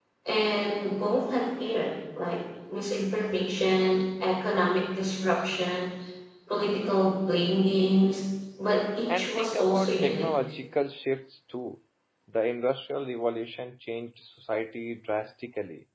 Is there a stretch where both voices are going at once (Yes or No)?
Yes